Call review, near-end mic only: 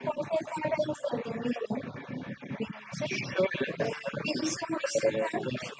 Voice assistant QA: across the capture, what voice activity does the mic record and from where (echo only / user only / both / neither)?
echo only